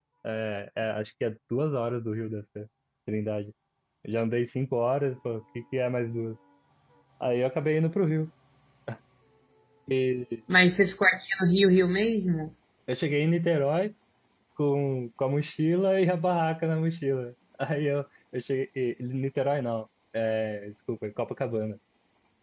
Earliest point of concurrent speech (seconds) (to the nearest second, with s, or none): none